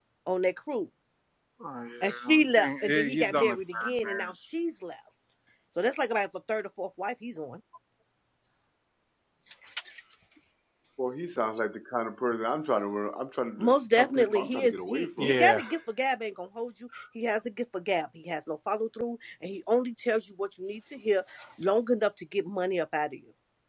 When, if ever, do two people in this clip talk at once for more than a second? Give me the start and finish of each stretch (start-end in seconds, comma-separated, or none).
2.0-4.3, 13.6-15.6